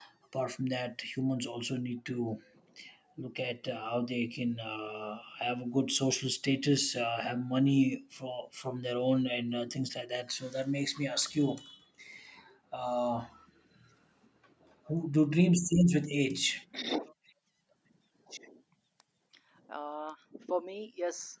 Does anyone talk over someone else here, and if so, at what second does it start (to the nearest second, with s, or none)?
none